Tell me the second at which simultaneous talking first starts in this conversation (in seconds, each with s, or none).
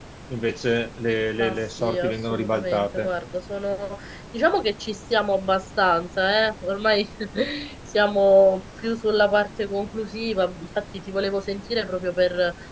1.4 s